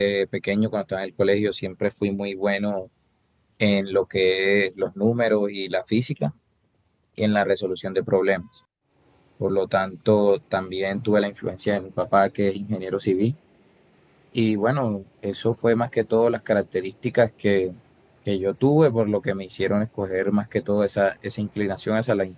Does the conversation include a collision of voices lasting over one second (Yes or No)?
No